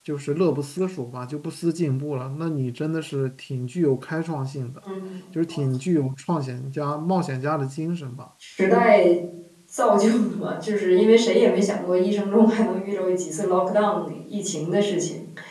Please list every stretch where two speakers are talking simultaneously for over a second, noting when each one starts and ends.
none

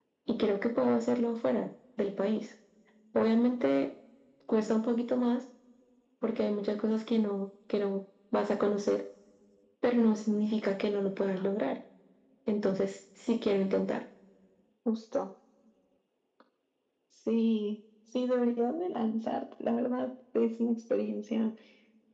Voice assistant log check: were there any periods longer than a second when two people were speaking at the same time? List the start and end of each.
none

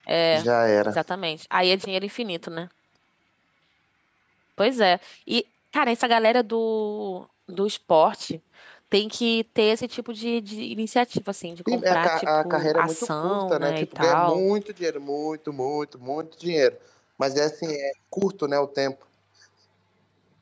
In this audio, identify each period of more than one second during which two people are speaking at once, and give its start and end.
11.7-14.4

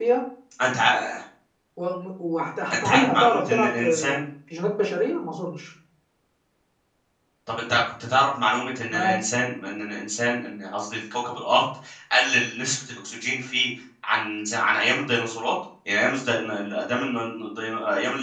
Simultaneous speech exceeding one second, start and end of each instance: 2.7-4.2

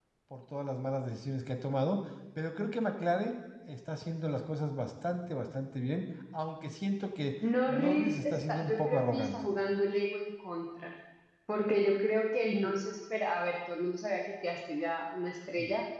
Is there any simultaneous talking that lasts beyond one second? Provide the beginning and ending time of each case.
7.7-9.3

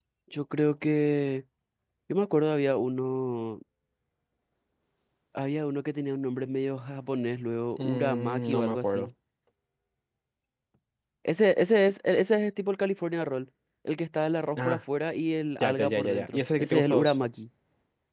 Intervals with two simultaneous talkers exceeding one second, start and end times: 7.8-9.1, 15.6-17.1

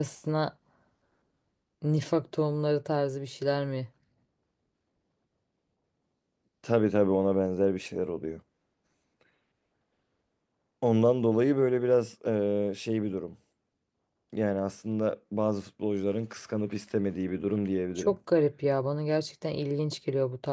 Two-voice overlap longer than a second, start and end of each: none

